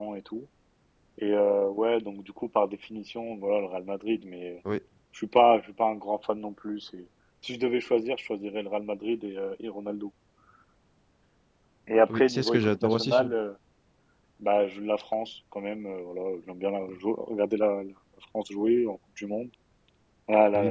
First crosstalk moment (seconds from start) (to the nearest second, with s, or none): 12 s